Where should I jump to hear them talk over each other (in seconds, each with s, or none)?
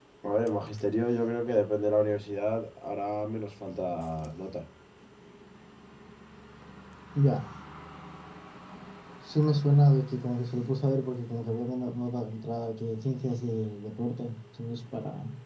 none